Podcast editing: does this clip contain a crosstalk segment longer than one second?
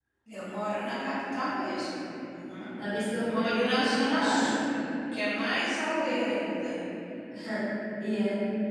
Yes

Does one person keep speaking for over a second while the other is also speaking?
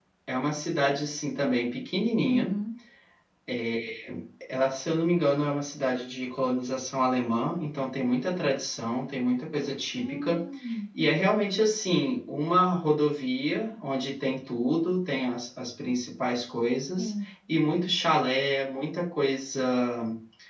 No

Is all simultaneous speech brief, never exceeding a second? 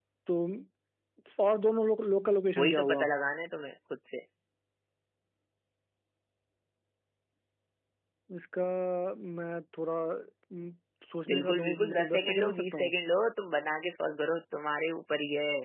No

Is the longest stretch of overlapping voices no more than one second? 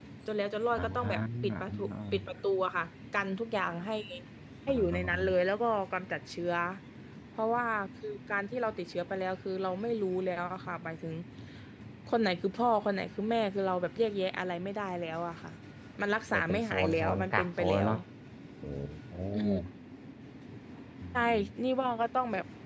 No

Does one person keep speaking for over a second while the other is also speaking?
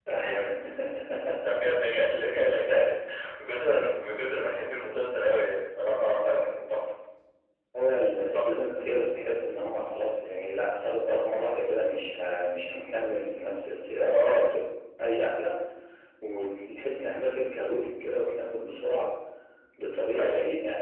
No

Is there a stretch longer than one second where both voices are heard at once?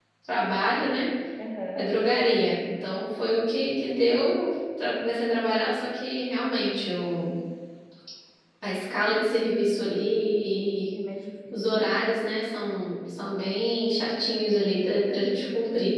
No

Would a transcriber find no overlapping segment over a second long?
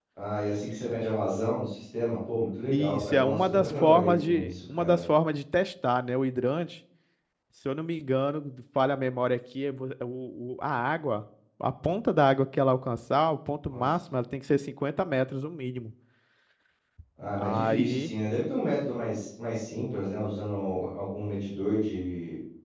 No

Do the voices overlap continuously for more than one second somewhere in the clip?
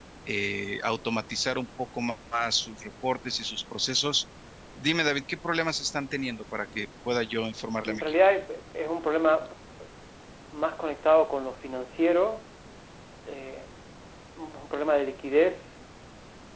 No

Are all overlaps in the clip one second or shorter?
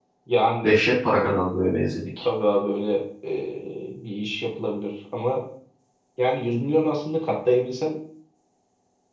Yes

